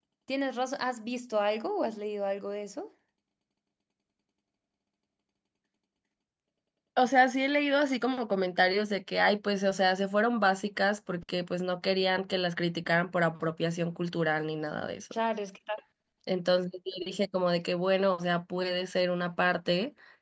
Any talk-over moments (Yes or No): No